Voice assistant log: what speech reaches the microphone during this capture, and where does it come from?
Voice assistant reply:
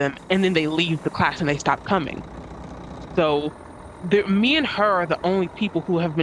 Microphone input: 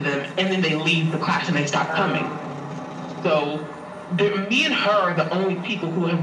both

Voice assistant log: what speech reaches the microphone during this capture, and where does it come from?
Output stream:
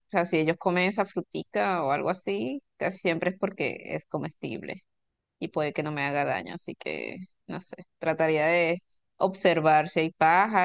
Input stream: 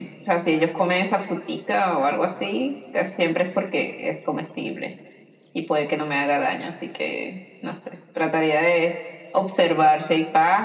echo only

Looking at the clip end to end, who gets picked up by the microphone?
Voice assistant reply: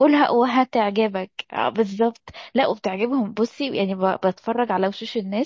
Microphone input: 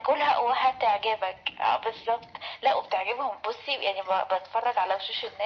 echo only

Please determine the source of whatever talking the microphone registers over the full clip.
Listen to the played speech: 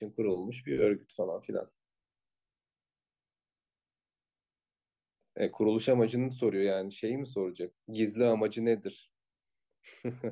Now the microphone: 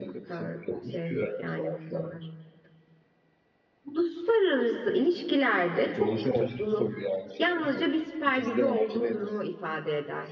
both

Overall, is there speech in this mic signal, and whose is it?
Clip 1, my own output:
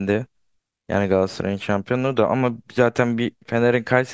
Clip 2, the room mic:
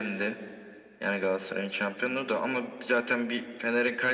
echo only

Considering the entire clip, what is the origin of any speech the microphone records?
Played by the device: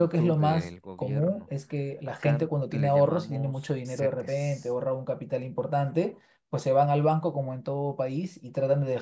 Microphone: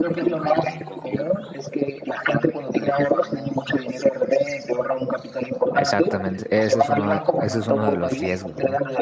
both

